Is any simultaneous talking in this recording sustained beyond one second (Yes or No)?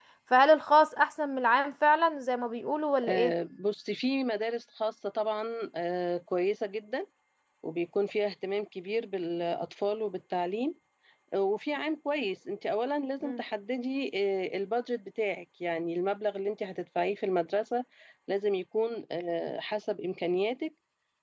No